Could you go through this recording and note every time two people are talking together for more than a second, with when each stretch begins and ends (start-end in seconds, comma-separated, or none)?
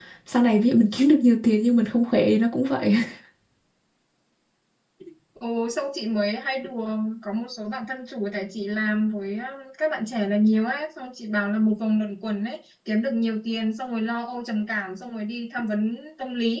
none